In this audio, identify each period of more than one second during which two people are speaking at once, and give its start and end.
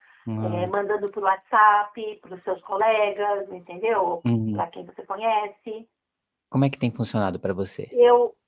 none

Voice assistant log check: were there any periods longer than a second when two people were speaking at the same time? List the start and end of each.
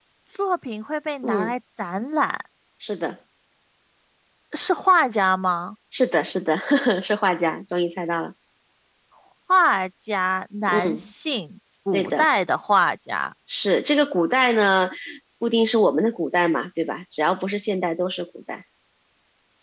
none

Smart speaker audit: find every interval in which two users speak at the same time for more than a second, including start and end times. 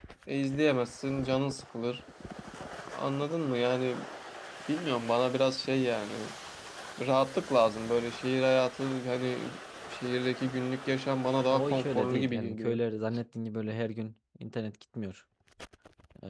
11.5-12.8

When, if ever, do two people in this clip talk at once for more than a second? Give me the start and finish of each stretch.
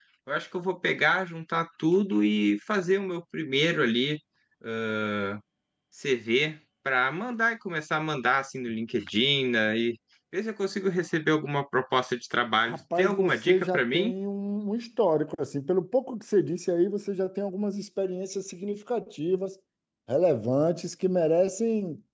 12.7-14.1

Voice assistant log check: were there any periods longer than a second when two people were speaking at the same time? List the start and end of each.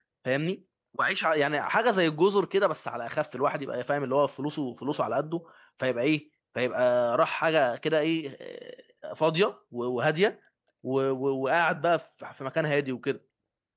none

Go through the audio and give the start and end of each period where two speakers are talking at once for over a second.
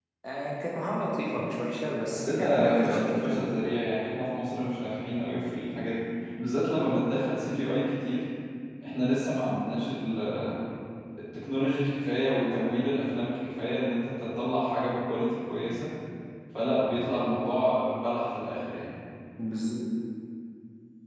2.1-3.5

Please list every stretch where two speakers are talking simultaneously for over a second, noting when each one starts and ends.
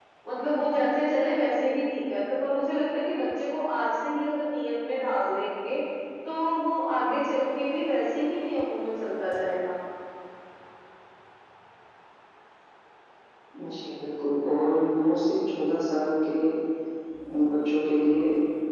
none

